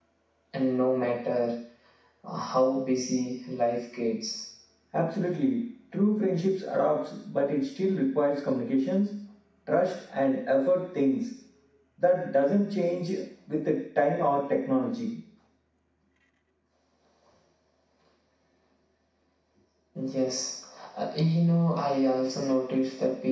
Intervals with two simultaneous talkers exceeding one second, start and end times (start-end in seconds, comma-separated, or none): none